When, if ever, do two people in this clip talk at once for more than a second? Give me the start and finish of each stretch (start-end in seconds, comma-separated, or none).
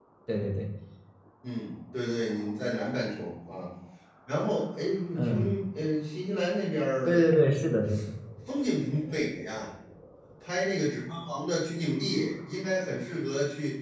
none